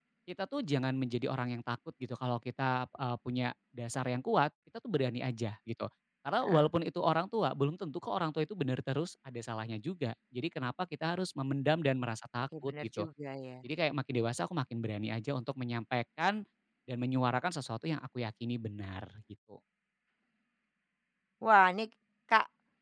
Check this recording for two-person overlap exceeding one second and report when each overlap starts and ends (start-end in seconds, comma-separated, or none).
none